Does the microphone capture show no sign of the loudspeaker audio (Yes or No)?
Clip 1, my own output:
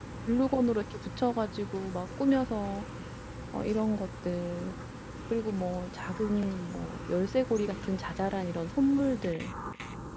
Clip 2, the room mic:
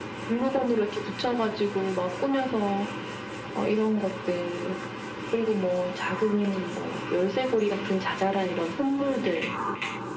No